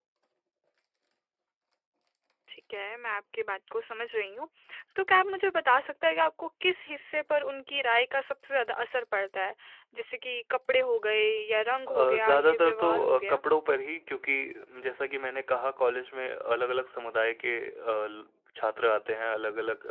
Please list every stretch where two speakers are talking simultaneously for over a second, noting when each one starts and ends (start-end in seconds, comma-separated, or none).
11.9-13.4